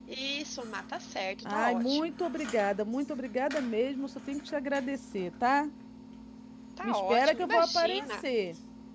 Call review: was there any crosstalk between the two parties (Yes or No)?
Yes